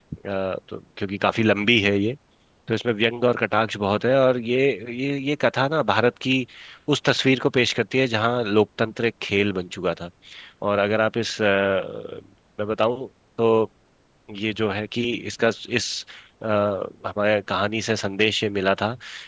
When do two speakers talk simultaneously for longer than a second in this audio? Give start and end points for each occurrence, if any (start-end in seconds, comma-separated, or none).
none